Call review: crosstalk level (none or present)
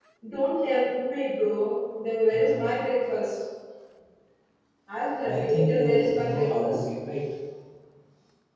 present